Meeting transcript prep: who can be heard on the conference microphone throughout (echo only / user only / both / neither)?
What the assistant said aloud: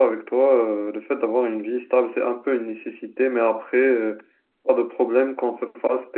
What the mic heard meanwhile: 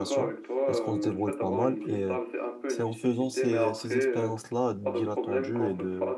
both